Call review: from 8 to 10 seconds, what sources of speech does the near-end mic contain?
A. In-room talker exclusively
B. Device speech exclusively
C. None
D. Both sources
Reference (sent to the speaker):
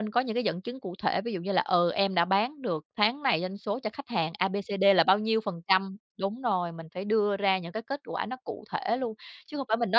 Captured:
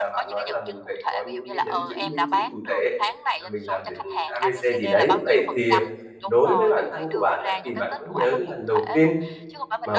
D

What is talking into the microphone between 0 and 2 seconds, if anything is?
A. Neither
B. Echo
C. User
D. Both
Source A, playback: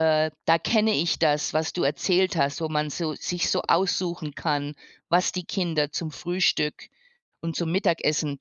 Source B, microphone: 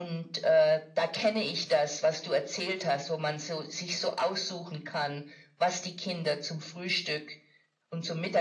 B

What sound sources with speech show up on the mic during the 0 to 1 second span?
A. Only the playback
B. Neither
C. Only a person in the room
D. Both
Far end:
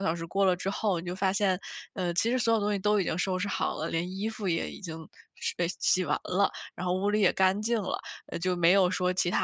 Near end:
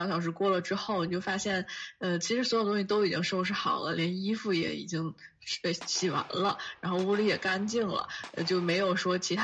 A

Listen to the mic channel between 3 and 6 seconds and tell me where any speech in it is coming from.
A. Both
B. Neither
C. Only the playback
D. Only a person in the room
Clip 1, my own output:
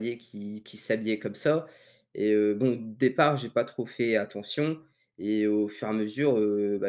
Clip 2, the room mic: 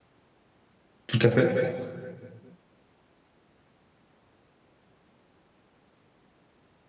B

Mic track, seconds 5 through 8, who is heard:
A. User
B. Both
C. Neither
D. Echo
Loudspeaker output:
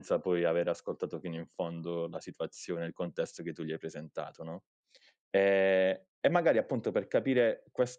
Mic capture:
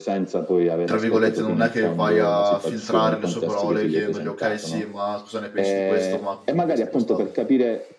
B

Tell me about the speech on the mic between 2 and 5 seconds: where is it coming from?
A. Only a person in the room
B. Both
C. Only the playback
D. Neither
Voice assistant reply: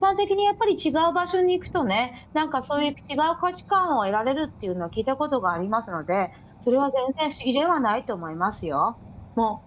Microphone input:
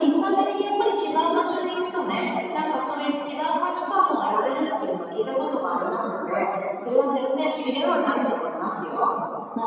C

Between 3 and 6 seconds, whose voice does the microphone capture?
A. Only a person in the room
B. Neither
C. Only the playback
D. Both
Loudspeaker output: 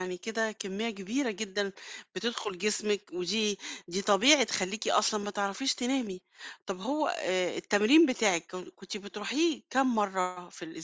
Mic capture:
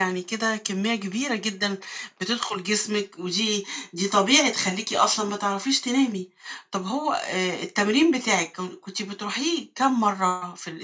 C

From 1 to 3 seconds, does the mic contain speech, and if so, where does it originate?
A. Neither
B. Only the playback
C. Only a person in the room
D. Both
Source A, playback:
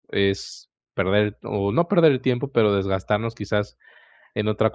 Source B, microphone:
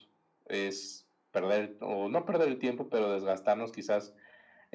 B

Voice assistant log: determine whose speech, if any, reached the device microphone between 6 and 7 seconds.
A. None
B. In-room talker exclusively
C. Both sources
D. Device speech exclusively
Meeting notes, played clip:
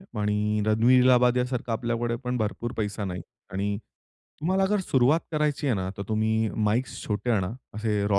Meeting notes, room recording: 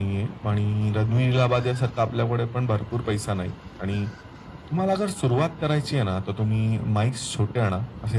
D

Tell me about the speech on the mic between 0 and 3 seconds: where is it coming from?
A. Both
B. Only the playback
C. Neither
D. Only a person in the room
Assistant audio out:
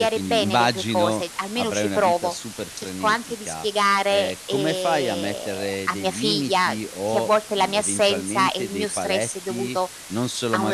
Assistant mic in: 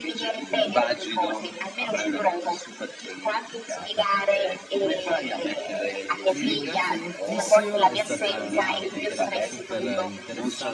B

